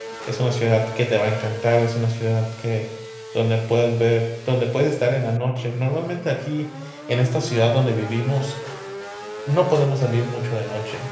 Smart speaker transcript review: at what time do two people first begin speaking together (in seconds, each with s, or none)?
none